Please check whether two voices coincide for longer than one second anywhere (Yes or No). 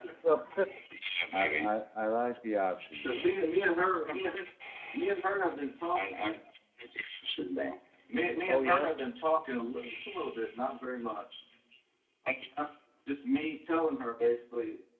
No